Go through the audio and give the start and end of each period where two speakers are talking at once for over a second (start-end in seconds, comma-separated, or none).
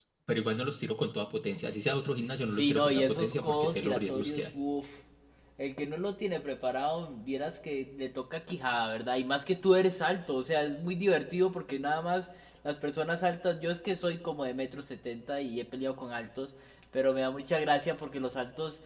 2.5-4.5